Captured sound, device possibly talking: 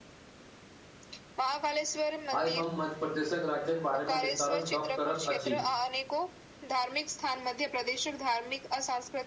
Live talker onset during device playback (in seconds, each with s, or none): 2.4 s